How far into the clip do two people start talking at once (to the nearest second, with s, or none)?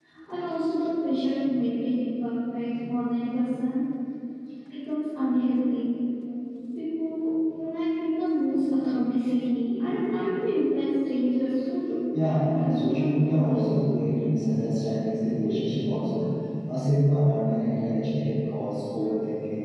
12 s